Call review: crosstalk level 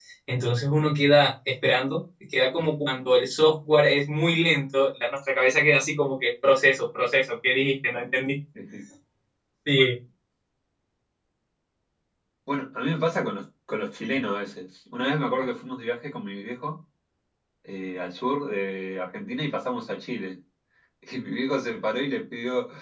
none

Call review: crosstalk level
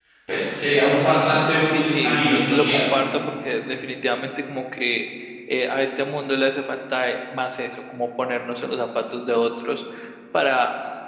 present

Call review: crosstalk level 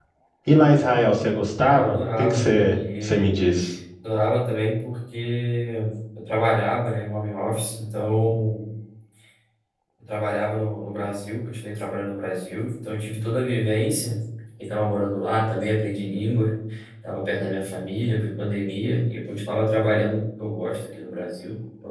present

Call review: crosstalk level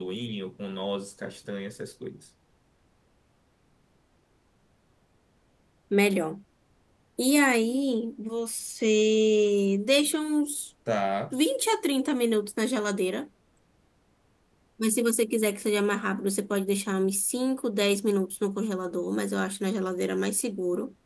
none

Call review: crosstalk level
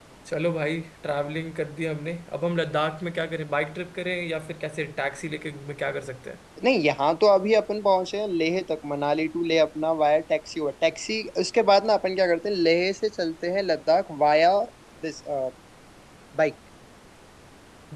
none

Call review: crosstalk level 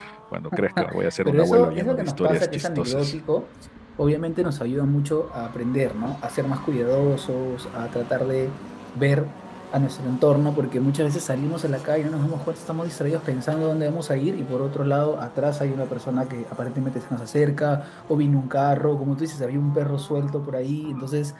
present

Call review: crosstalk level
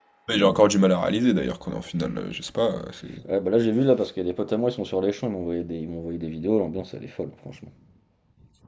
none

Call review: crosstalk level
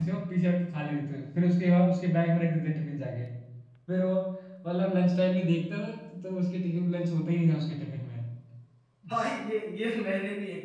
none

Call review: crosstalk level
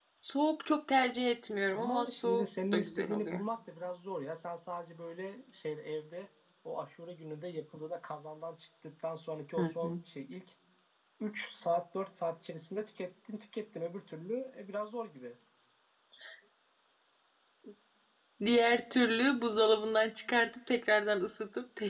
present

